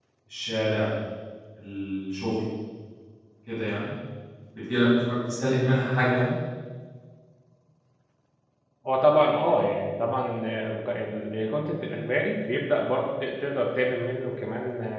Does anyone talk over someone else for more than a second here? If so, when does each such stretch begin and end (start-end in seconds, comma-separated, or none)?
none